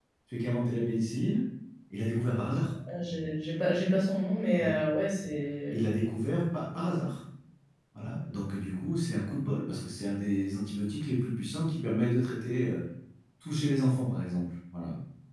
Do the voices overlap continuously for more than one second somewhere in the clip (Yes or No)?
No